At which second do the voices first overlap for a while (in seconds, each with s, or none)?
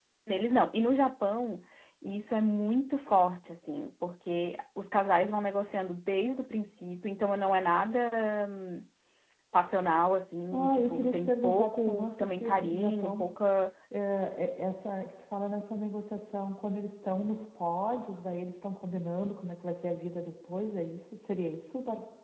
10.5 s